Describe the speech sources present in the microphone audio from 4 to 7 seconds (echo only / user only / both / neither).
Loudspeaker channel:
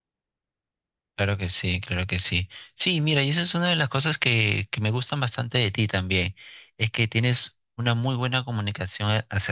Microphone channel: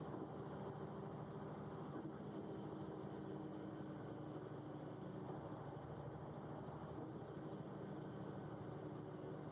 neither